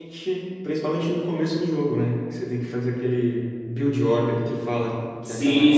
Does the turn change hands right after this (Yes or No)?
Yes